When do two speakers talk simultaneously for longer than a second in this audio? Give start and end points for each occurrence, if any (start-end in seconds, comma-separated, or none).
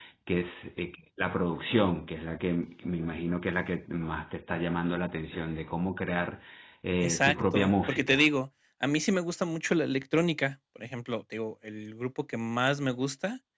7.0-8.2